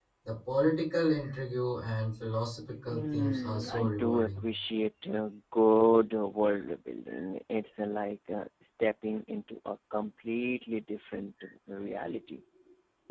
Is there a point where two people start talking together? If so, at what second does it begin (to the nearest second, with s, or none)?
3 s